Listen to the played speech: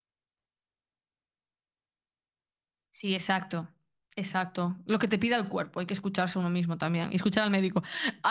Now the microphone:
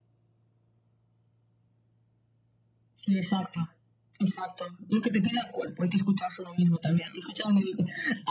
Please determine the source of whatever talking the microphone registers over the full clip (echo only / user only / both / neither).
echo only